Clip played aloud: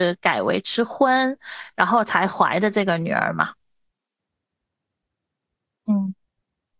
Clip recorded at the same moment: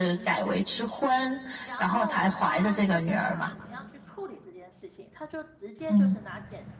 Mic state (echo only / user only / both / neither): both